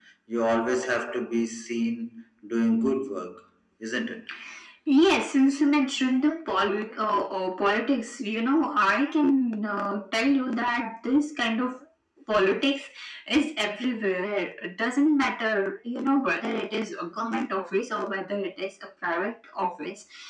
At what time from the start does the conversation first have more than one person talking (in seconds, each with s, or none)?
none